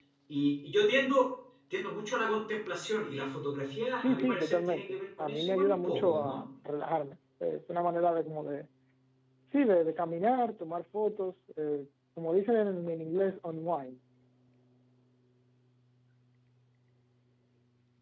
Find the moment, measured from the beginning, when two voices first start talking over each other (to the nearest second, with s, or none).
4 s